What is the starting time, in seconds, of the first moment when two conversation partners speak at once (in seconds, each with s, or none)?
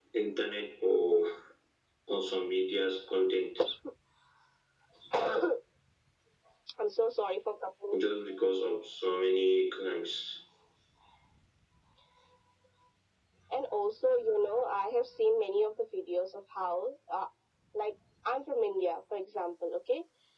none